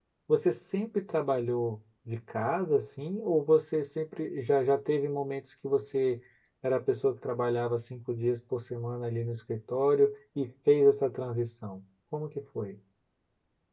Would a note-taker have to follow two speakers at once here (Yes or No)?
No